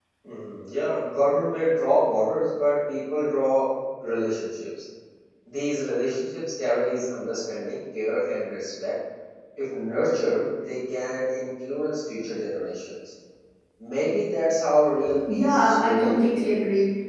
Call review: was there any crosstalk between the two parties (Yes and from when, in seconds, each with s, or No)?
Yes, from 15.3 s